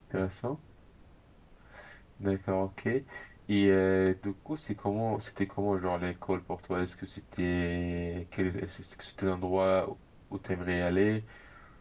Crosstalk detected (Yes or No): No